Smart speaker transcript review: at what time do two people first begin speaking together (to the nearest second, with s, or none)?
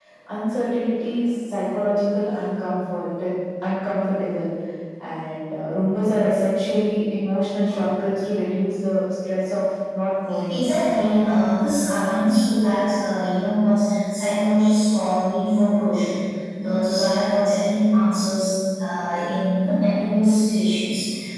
none